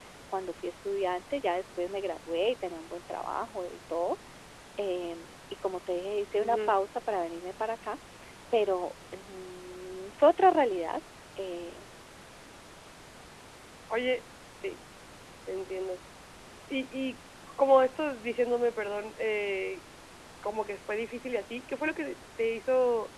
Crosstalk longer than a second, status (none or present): none